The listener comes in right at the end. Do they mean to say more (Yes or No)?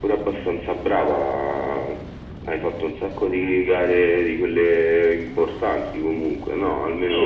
Yes